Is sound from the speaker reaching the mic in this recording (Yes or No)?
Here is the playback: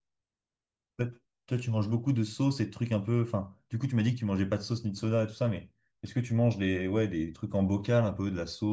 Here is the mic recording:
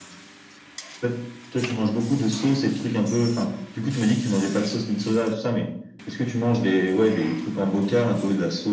Yes